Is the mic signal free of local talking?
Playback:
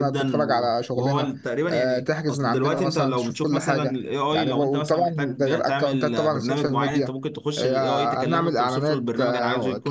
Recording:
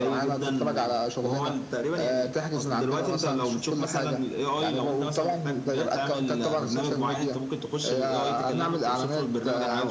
Yes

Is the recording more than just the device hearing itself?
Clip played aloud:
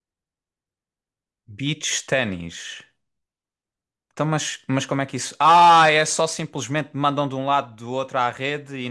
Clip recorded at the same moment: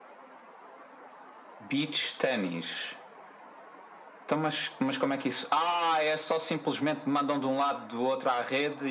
No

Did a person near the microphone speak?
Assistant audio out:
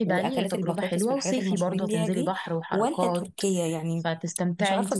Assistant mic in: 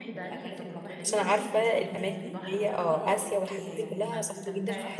Yes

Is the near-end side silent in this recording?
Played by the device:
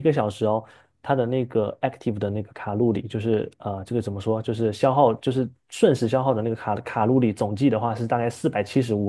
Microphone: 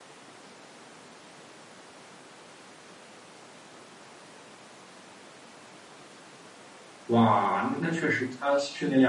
No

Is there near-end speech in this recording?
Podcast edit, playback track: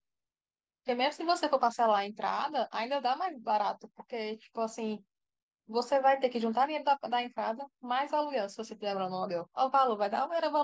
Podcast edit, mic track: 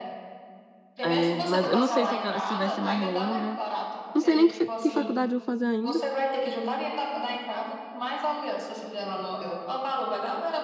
Yes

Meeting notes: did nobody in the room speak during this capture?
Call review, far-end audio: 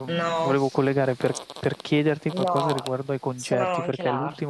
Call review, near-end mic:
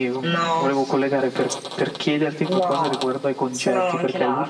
Yes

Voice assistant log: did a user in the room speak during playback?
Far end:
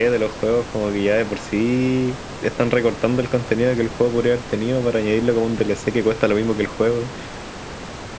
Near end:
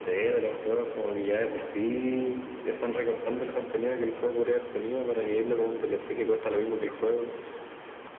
No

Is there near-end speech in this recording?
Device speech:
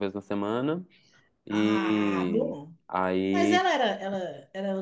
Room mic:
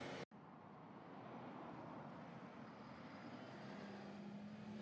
No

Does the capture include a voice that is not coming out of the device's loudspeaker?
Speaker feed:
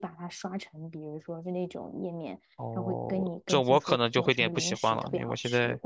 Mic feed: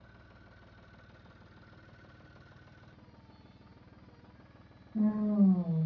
Yes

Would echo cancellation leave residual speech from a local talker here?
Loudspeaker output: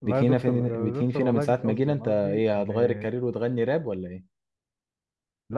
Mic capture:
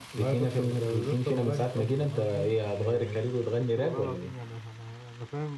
Yes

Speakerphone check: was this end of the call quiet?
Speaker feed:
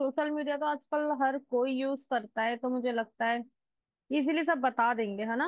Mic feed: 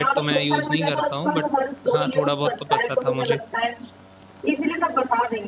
No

